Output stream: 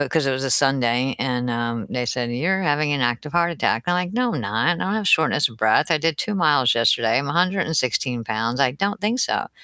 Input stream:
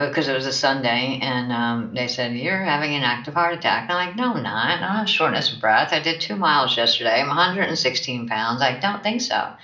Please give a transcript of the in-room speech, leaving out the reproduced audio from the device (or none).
none